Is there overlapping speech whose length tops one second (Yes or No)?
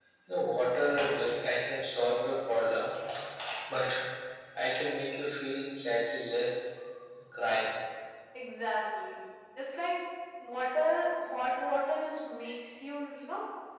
No